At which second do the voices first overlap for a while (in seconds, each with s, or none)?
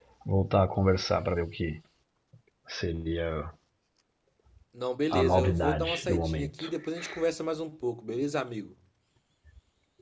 5.1 s